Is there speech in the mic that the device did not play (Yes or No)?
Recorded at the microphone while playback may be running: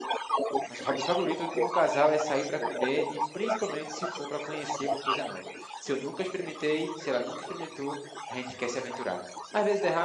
Yes